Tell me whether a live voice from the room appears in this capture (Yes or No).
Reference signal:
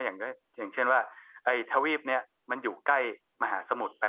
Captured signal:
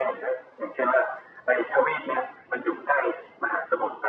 No